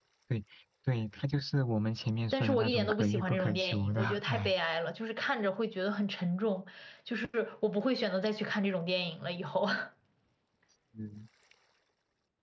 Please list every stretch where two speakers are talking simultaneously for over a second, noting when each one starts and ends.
2.3-4.5

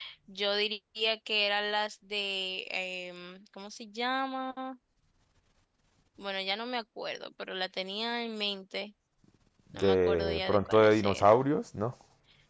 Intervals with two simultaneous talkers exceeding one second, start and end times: 9.7-11.4

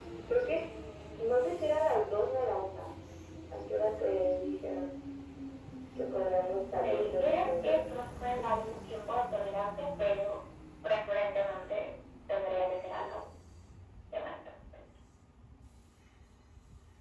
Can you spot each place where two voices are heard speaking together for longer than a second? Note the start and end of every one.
6.8-8.0

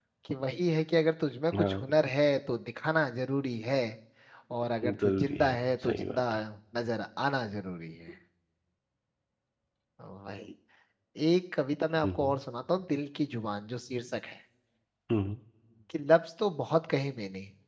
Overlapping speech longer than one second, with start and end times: 4.8-6.2

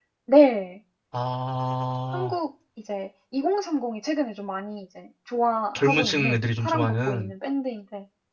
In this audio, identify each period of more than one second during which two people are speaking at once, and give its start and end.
5.8-7.3

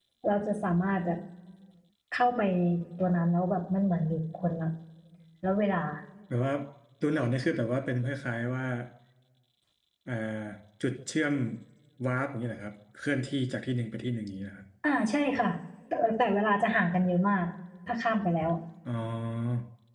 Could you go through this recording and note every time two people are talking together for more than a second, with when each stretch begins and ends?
none

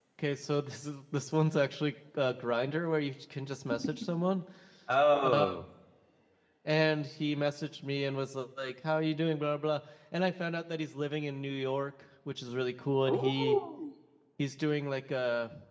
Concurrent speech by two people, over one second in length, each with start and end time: none

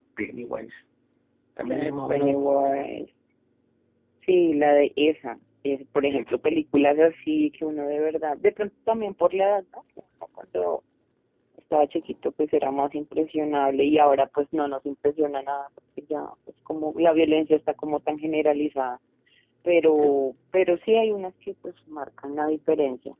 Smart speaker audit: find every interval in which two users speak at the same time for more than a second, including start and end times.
1.6-2.9

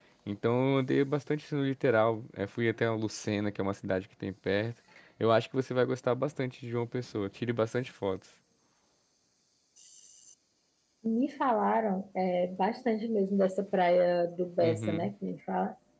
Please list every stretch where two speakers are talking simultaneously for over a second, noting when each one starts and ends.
none

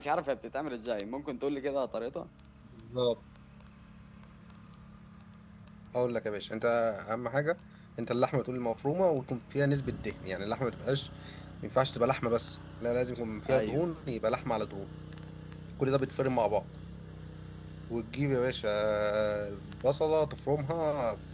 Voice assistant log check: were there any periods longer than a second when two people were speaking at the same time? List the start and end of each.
none

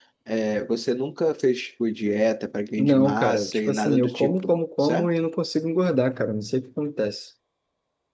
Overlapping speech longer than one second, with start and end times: 2.8-5.1

